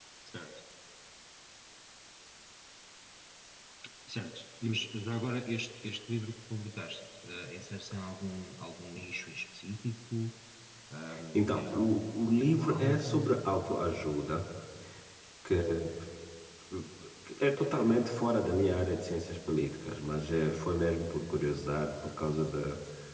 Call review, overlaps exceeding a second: present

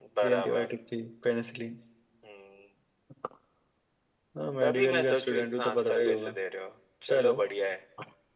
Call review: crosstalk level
present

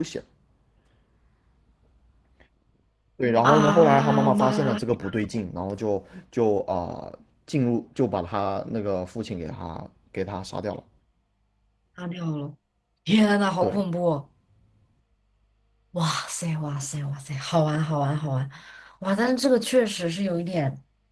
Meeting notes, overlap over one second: present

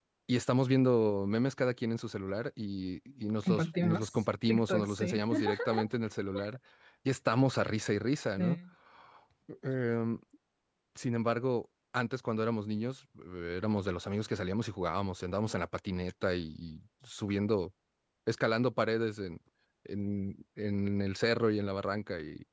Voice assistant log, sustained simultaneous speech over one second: present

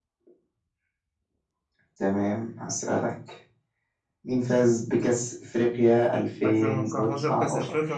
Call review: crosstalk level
present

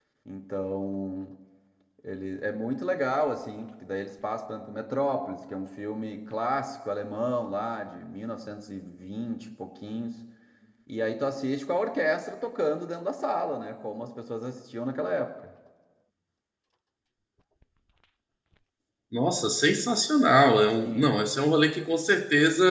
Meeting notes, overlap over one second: none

